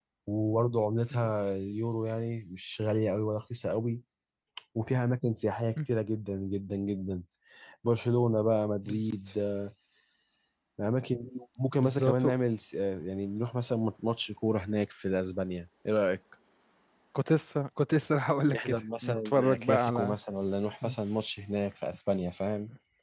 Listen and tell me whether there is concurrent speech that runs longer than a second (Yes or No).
Yes